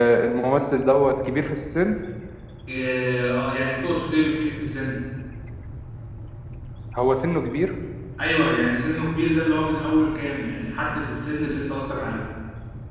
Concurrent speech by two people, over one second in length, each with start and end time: none

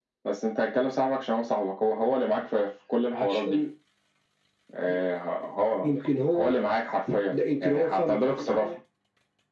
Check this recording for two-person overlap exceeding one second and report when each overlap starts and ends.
7.3-8.6

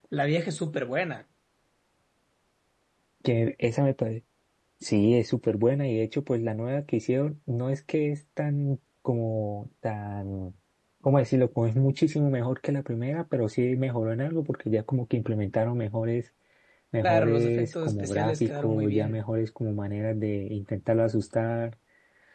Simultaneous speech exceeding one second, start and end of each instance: 17.0-19.2

